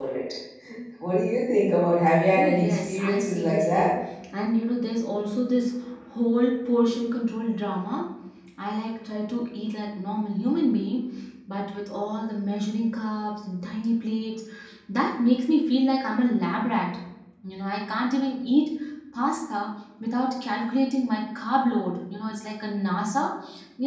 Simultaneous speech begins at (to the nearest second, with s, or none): 2 s